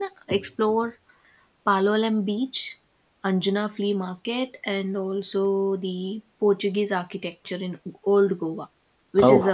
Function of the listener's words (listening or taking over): listening